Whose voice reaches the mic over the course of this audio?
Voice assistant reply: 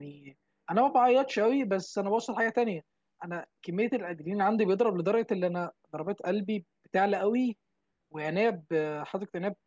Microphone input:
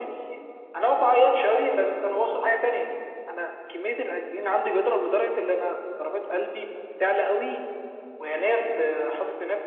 echo only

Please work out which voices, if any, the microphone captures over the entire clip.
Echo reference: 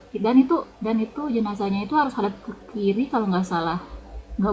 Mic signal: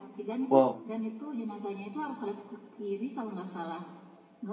both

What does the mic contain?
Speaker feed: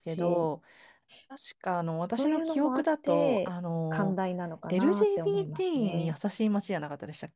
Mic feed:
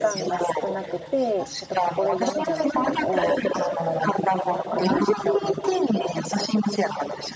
both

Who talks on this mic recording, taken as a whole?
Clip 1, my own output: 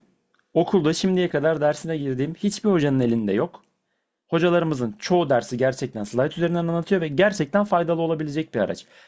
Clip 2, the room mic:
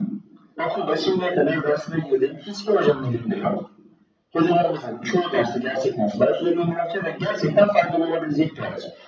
echo only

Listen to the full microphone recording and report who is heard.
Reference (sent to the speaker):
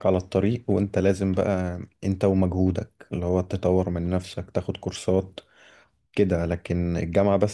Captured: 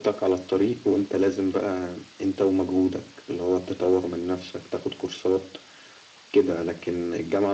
echo only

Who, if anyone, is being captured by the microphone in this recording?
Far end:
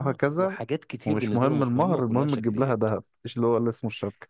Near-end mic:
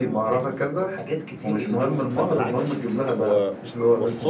both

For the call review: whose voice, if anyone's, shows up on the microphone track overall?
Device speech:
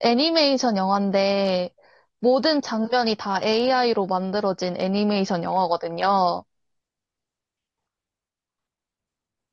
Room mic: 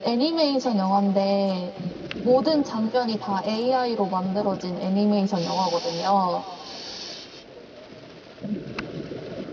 echo only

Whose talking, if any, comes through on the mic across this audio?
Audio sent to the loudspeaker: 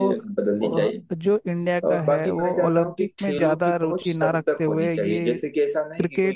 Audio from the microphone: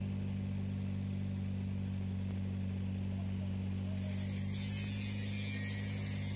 neither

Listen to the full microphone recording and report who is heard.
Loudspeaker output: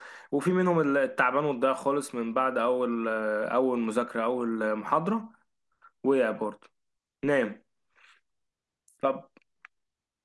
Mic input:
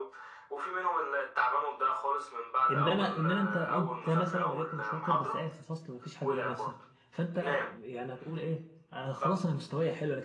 both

